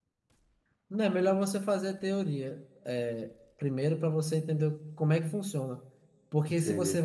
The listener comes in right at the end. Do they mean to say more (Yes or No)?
No